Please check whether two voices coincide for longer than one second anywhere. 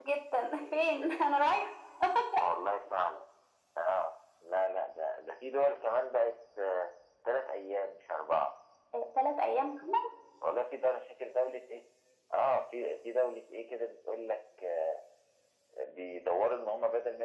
No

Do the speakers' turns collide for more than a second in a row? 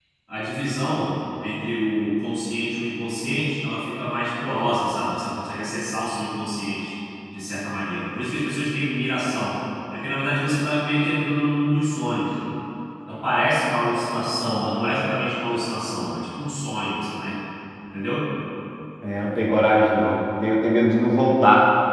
No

